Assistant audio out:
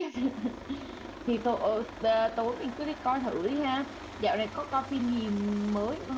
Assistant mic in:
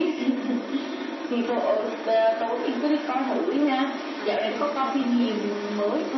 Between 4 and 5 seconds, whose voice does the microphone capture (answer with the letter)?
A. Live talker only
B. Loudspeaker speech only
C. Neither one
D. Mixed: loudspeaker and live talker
D